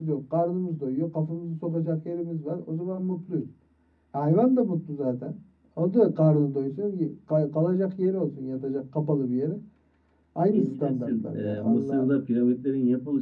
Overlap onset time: 10.5 s

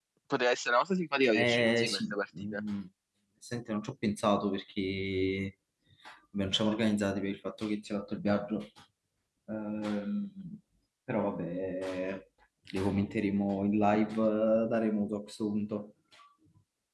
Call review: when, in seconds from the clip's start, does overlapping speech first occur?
1.3 s

